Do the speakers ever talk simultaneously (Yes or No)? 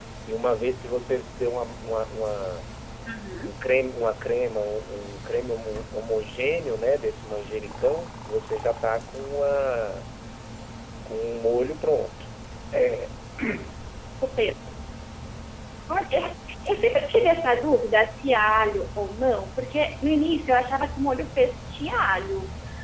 No